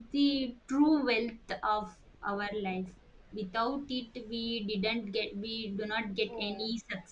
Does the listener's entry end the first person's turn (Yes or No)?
Yes